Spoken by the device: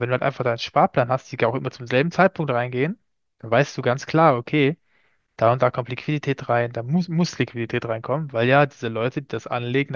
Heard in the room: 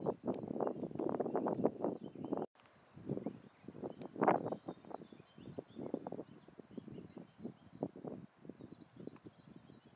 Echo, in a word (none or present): none